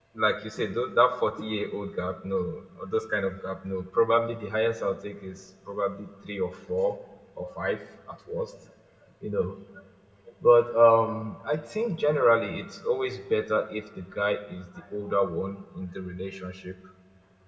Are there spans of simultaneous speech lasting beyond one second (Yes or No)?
No